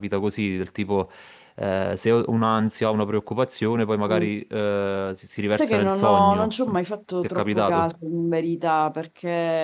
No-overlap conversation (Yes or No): No